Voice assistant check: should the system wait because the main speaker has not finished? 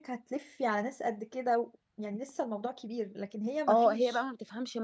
No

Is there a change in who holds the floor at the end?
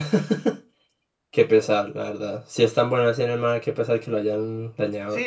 Yes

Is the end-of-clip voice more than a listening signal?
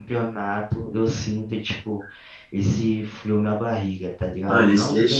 Yes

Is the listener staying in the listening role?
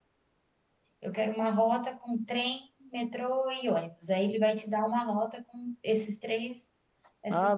No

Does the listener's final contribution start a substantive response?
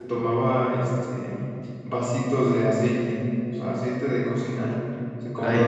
No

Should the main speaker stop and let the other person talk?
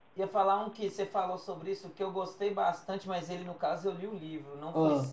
No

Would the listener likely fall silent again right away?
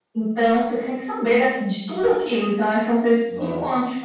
Yes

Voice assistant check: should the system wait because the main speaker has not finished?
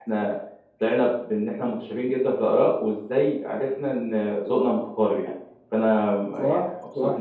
No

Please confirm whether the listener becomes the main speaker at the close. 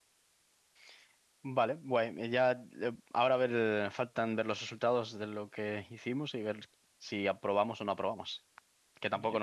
No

